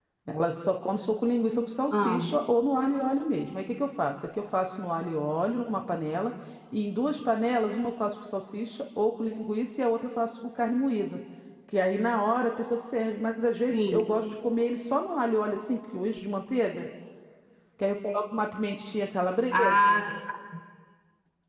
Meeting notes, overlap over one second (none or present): none